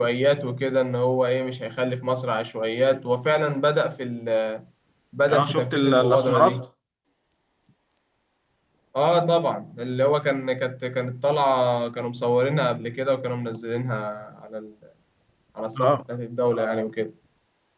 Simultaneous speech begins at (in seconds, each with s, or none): 5.3 s